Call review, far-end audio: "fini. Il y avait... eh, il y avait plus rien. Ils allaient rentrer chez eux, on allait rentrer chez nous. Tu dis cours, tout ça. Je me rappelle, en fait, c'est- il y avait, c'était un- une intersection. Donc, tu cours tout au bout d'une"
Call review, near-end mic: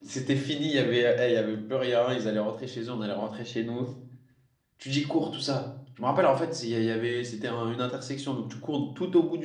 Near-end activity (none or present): none